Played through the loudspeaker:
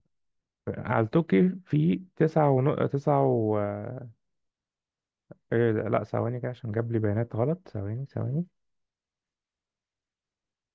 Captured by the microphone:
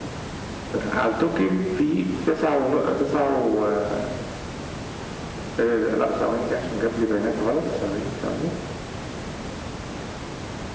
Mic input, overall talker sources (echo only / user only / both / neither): echo only